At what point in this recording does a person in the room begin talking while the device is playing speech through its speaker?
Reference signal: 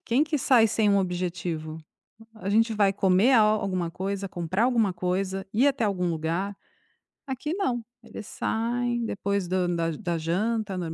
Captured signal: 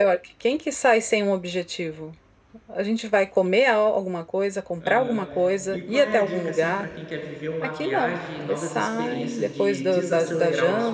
5 s

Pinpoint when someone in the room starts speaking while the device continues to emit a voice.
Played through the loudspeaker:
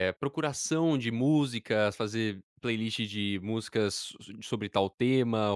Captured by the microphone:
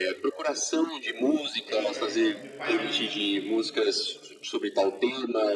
2 s

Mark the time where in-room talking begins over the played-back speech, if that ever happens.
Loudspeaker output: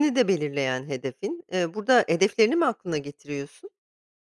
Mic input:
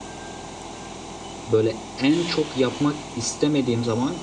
1 s

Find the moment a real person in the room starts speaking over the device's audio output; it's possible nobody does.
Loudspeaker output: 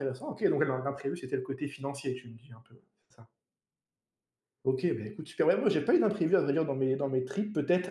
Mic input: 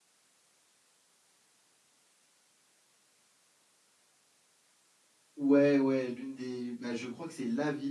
5 s

